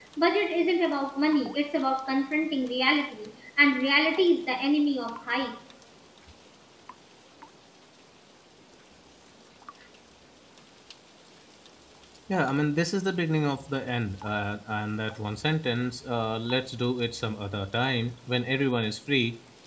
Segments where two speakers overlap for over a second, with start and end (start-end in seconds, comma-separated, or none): none